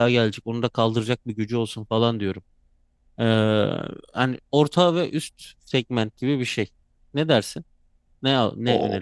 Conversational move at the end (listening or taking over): taking over